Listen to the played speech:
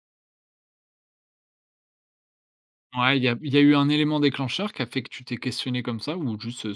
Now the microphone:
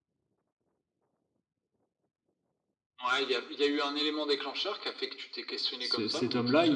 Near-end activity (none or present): present